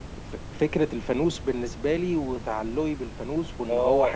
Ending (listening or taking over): taking over